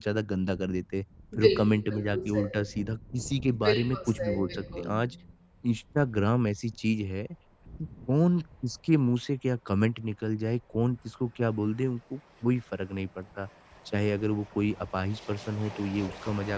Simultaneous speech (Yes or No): Yes